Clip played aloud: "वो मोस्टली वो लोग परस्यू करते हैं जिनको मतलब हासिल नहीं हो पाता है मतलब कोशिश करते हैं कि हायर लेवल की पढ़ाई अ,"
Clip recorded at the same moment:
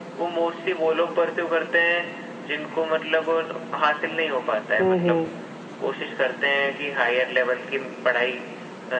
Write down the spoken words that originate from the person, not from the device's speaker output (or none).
हम्म हम्म।